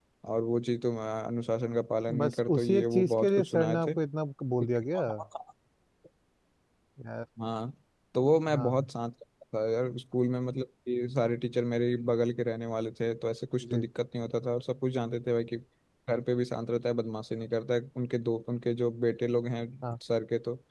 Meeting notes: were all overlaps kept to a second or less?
No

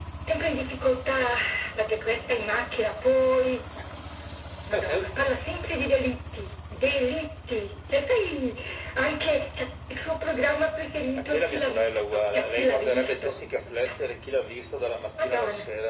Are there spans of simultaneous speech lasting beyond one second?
Yes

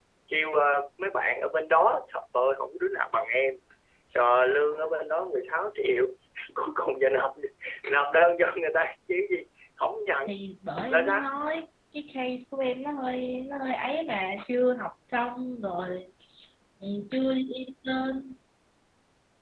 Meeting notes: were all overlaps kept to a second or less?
Yes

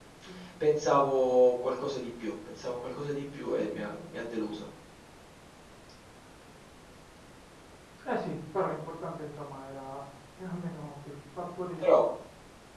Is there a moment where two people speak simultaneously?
No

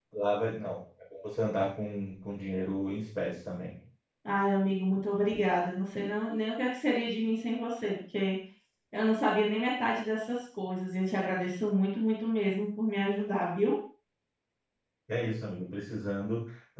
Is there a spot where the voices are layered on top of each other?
No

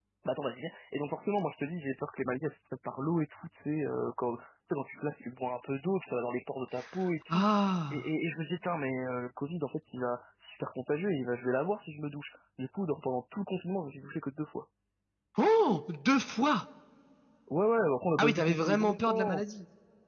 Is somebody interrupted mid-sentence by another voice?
Yes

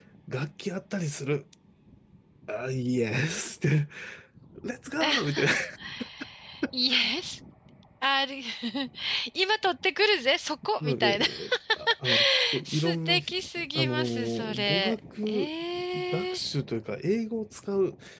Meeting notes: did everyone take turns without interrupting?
No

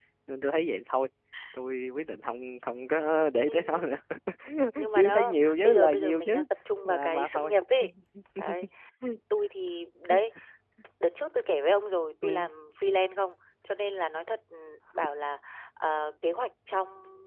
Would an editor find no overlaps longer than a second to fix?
No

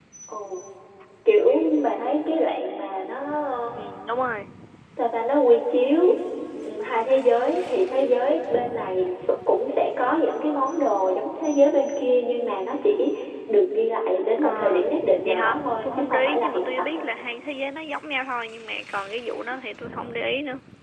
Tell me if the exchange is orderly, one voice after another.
No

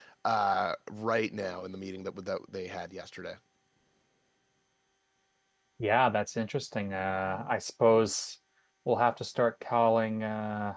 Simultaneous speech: No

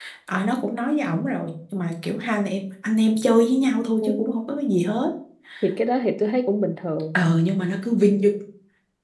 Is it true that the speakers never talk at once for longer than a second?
Yes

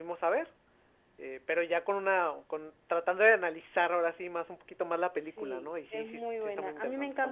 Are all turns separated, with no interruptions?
No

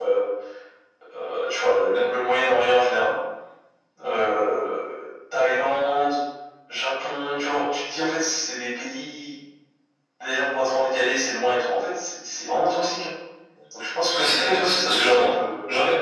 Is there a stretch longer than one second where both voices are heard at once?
Yes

